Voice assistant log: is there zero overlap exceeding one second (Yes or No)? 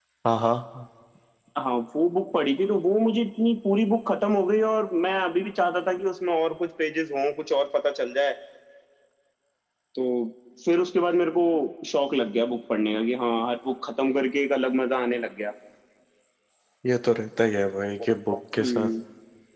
Yes